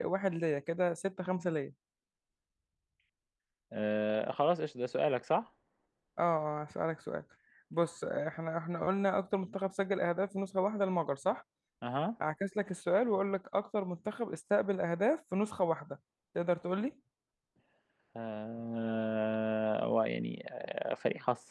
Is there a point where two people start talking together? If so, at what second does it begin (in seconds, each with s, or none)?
none